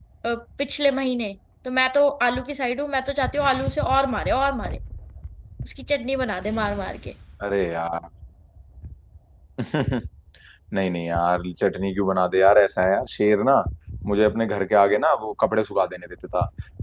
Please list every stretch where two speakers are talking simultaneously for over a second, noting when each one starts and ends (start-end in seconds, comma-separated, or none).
none